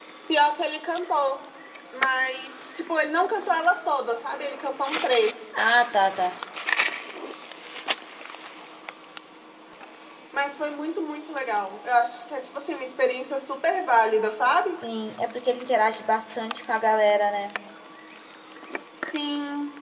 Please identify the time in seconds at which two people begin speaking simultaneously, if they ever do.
none

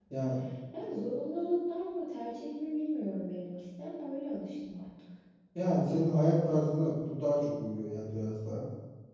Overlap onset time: none

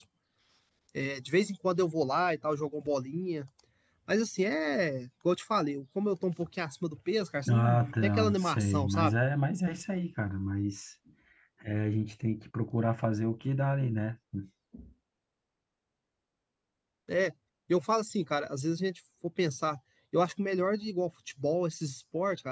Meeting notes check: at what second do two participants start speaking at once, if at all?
7.5 s

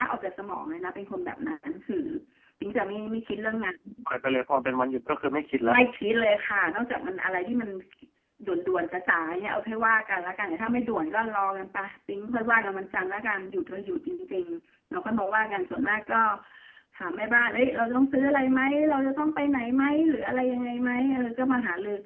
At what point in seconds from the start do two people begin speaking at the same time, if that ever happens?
none

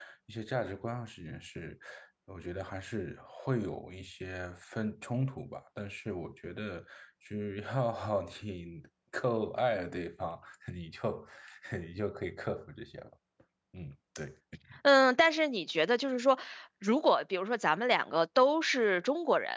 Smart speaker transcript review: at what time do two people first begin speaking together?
none

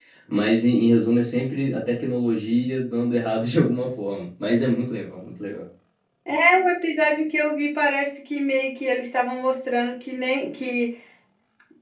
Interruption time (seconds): none

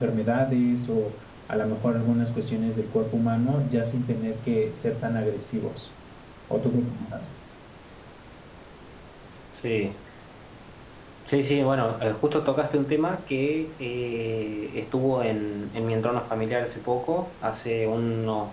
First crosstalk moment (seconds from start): none

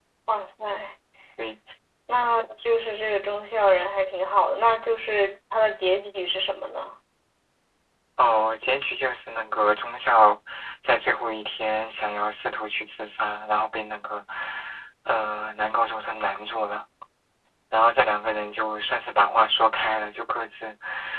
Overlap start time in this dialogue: none

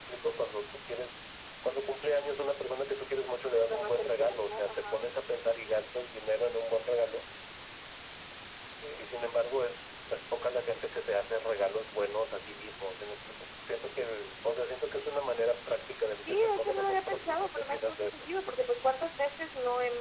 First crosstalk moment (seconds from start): 3.5 s

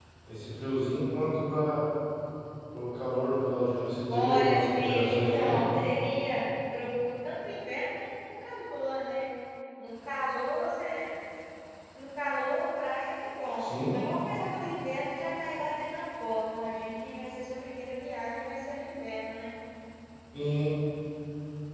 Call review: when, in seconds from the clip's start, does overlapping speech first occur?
4.1 s

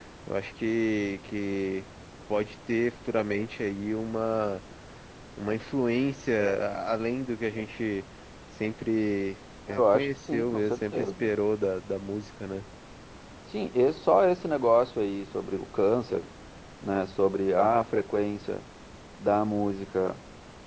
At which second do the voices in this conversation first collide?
9.7 s

